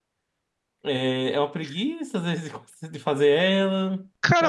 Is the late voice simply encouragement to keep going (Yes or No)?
No